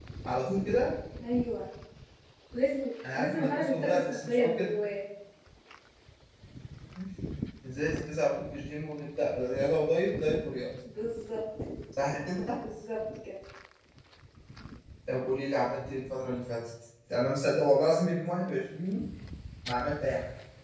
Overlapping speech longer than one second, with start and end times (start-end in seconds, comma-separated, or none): 3.1-4.7